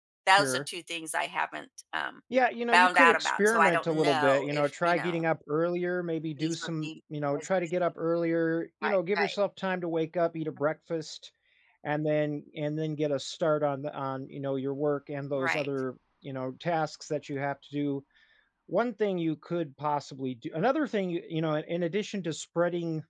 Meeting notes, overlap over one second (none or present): present